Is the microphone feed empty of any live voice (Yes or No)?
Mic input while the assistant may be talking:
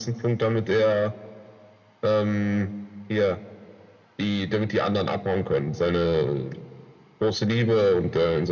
Yes